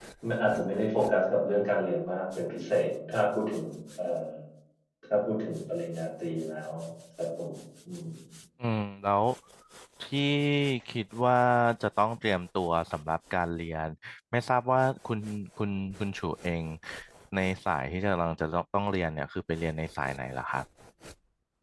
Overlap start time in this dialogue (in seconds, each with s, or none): none